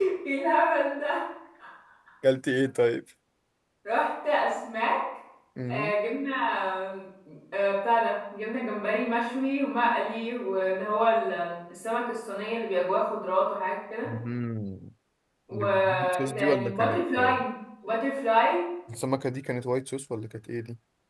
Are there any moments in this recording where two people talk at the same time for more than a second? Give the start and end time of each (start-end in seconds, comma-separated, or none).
15.5-17.3